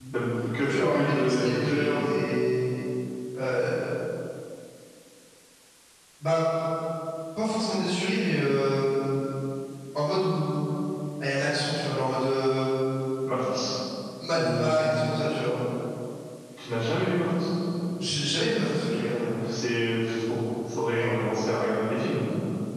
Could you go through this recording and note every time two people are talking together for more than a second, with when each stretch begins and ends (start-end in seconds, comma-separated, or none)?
0.6-2.0